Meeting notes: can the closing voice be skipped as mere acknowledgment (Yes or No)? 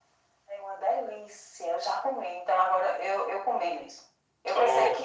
Yes